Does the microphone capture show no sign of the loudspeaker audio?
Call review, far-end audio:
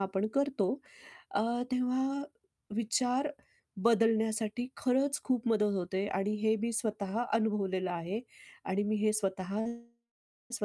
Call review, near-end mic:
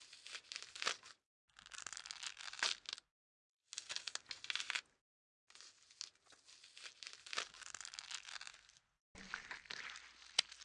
Yes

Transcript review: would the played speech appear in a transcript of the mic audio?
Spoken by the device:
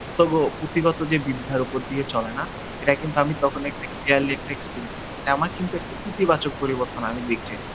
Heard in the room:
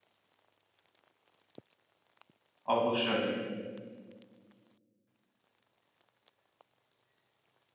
No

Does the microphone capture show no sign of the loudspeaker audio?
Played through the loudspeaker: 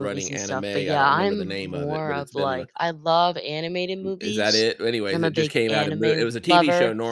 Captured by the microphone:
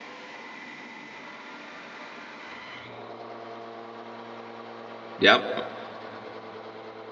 Yes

